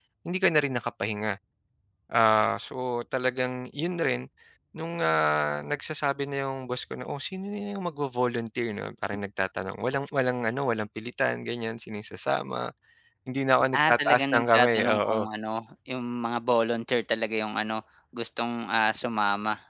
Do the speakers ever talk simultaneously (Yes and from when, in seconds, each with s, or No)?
Yes, from 13.9 s